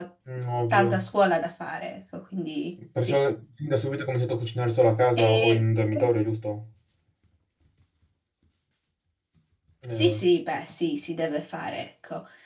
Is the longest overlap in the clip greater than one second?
No

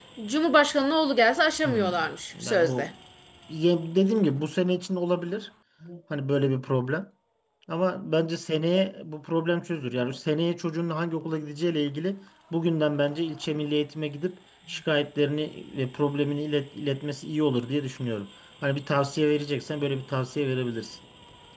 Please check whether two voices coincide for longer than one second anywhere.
No

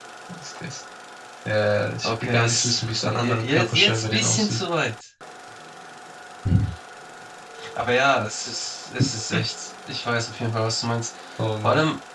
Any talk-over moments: Yes, from 2.0 s

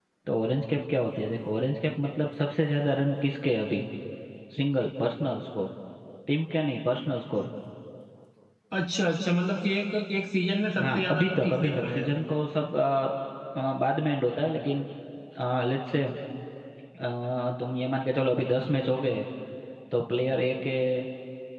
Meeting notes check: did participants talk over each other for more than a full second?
Yes, from 10.8 s

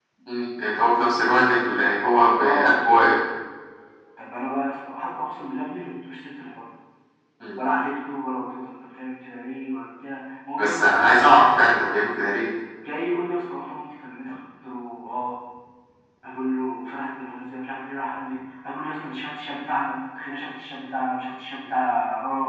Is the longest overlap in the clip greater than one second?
No

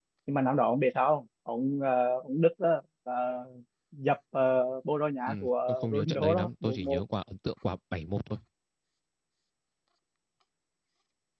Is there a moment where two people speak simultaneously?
Yes, from 5.3 s

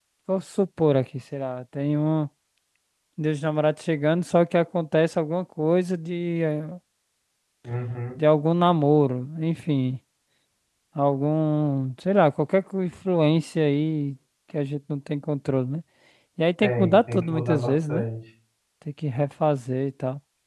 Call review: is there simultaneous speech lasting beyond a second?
Yes, from 16.6 s

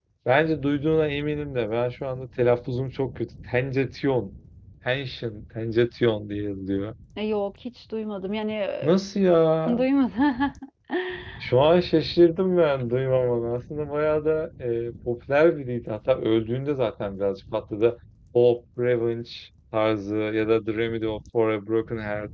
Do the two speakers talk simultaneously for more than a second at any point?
No

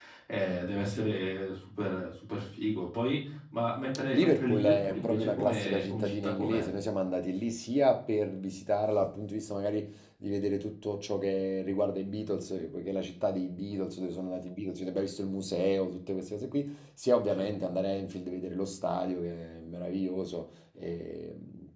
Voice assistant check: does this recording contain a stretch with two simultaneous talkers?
Yes, from 4.1 s

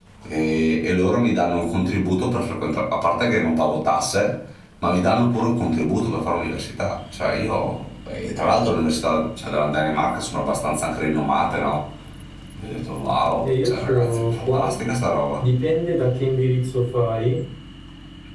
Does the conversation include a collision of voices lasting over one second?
Yes, from 13.4 s

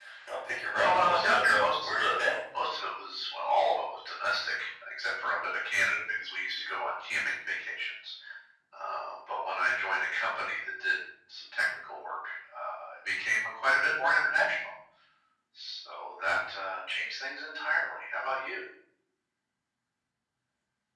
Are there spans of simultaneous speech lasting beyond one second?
Yes, from 0.7 s

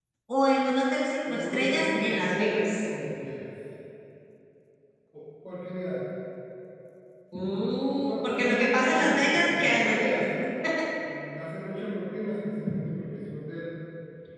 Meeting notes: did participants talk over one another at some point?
Yes, from 1.2 s

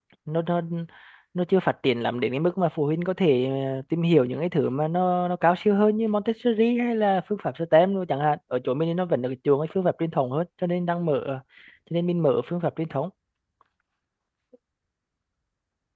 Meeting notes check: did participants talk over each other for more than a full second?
No

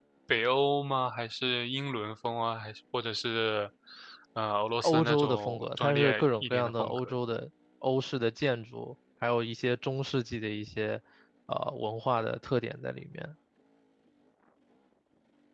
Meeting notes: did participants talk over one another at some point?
Yes, from 4.8 s

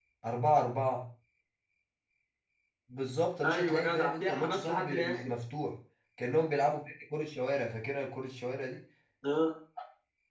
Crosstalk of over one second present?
Yes, from 3.4 s

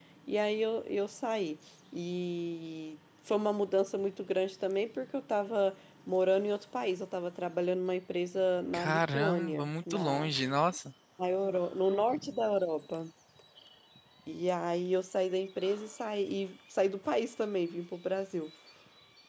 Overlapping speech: Yes, from 8.7 s

